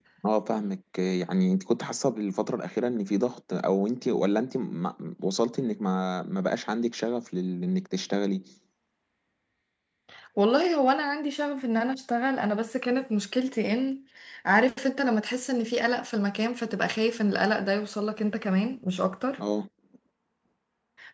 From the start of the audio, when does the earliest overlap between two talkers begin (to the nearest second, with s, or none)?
none